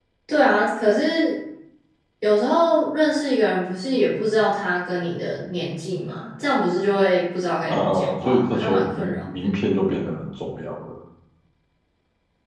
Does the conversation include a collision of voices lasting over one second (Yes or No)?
Yes